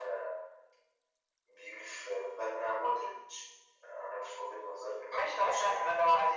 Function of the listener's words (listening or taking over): taking over